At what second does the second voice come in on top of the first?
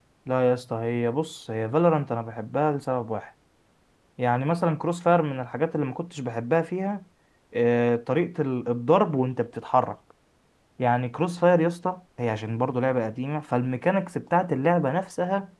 none

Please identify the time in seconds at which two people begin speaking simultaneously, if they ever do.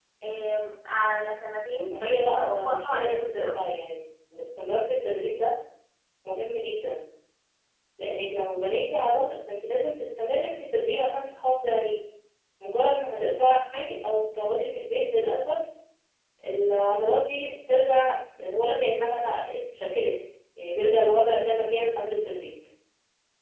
1.9 s

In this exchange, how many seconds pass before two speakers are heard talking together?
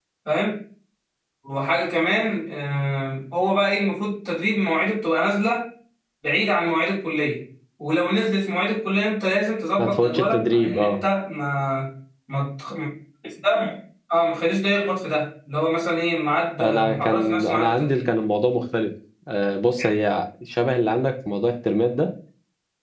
9.8 s

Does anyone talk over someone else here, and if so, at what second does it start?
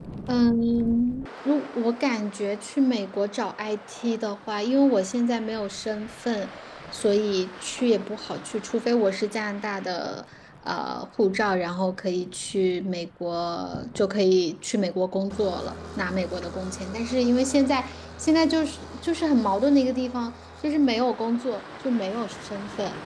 none

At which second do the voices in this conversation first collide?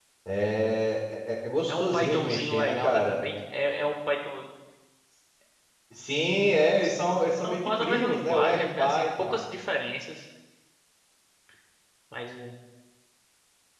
1.7 s

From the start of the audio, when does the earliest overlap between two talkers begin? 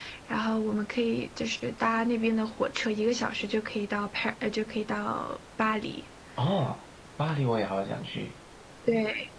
none

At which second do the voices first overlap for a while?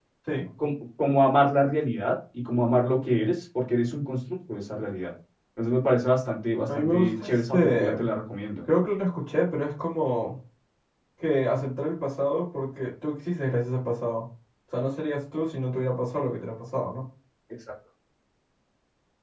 6.7 s

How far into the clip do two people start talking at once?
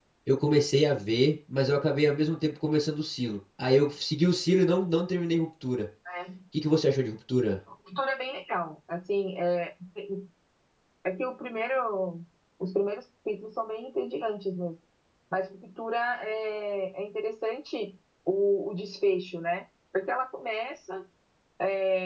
none

